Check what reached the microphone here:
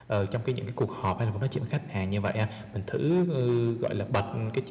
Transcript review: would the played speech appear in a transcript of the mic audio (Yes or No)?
No